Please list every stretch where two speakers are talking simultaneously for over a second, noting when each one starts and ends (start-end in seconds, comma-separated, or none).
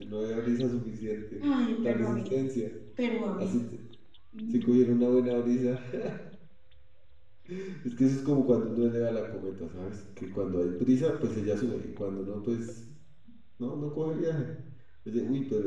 none